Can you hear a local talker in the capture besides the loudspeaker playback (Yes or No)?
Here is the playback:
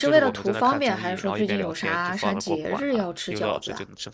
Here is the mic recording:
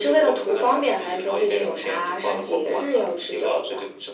No